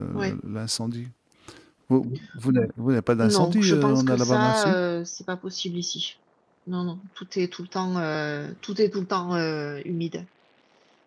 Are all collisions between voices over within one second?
No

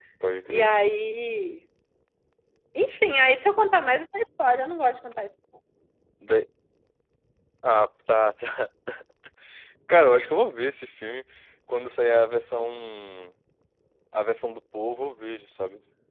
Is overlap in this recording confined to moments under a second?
Yes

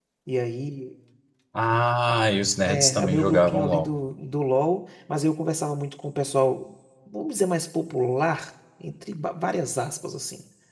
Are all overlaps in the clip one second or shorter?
No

